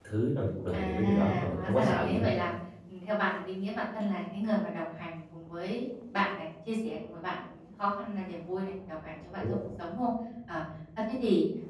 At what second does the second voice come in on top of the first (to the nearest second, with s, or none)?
1 s